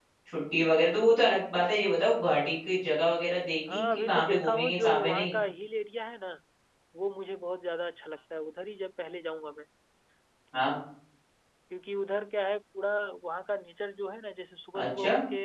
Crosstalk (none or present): present